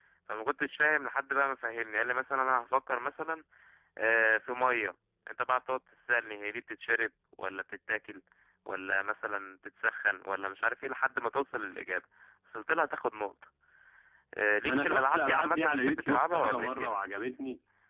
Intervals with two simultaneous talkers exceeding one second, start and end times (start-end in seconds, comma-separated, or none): 14.7-17.0